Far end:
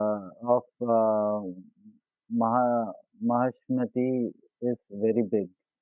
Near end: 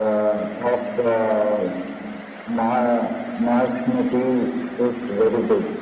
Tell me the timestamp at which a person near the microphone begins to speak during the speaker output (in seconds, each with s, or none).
none